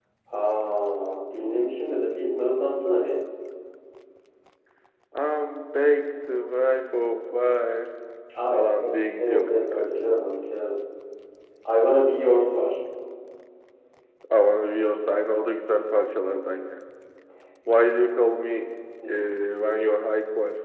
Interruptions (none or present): present